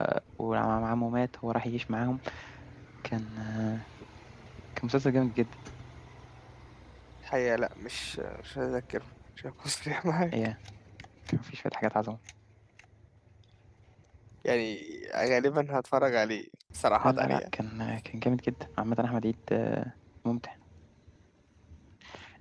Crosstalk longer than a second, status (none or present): none